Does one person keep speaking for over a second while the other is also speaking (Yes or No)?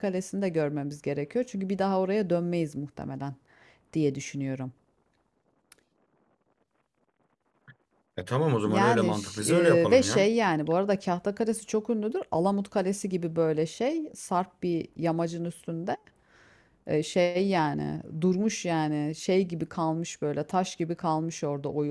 Yes